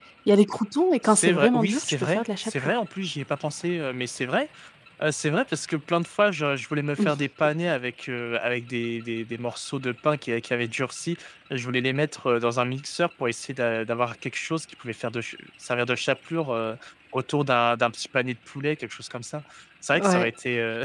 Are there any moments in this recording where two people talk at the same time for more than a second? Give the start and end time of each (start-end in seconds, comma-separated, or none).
1.0-2.8